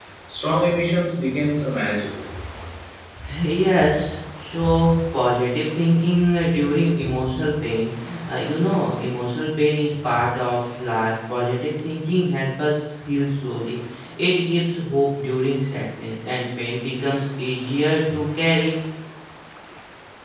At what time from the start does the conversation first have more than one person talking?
none

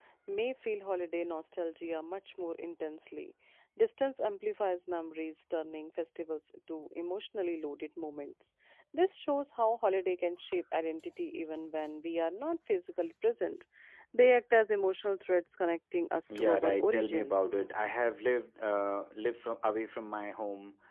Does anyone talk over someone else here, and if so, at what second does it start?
16 s

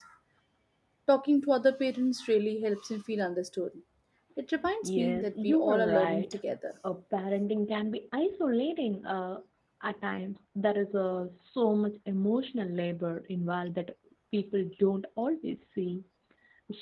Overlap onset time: 5 s

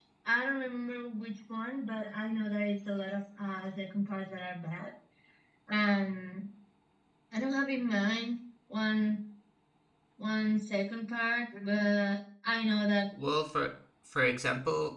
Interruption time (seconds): none

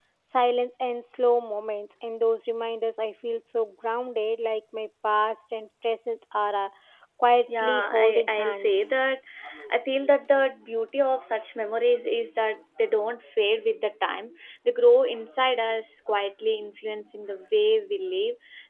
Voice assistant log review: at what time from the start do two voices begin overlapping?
8 s

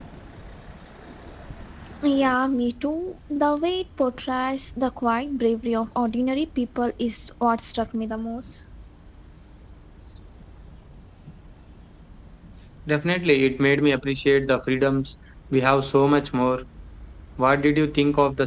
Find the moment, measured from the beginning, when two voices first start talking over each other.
none

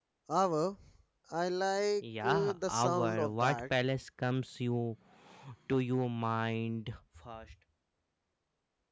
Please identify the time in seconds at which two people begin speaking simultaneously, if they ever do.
2 s

